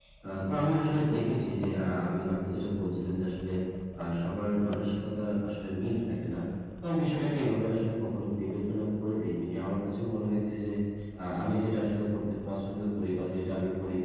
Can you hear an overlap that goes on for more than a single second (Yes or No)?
No